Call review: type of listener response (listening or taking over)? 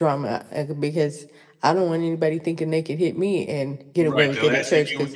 taking over